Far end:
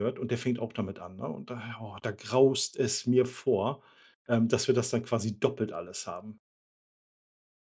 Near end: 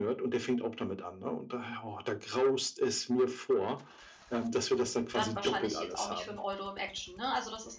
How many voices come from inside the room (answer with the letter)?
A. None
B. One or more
B